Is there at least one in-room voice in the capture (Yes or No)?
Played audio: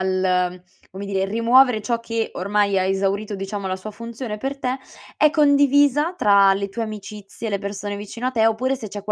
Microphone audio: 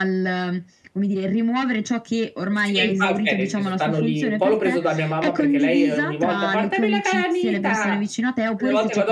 Yes